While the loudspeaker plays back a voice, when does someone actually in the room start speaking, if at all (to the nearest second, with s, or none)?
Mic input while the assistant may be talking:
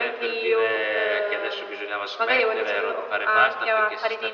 none